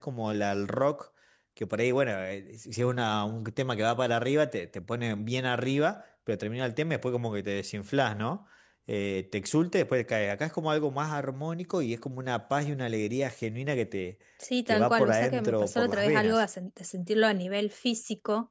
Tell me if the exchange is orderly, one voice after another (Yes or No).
No